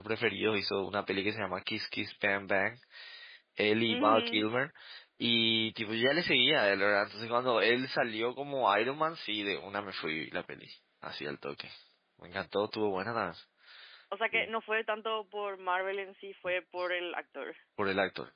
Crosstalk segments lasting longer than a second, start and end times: none

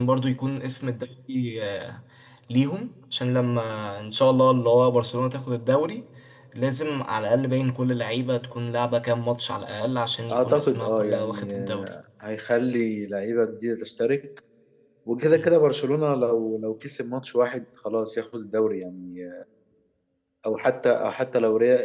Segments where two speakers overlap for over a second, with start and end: 10.3-11.9

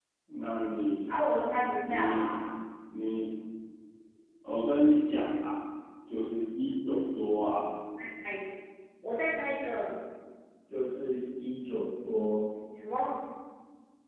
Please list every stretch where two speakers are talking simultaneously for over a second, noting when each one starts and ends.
none

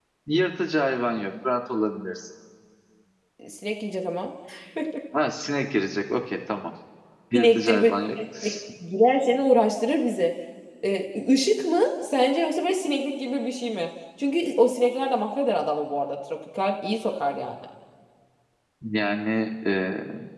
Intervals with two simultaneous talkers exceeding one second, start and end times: 7.3-8.6

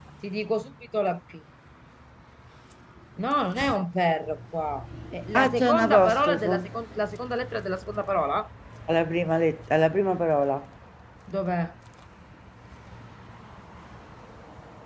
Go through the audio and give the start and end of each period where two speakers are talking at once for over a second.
5.3-6.7

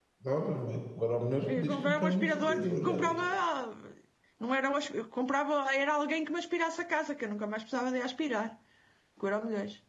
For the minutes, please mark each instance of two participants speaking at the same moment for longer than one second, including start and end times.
1.5-3.2

